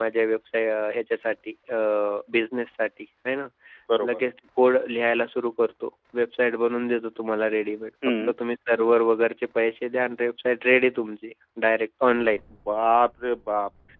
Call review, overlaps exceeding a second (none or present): none